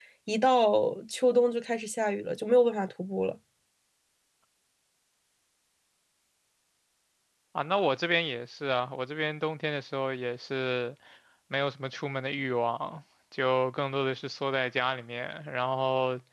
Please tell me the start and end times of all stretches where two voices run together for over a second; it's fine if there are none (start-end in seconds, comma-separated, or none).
none